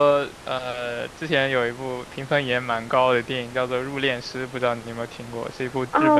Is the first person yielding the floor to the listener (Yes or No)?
Yes